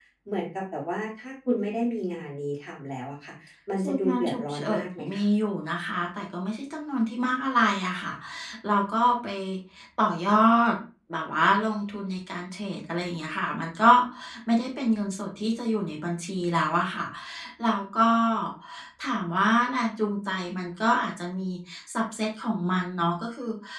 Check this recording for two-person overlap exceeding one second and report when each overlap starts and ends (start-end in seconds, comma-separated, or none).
3.8-5.2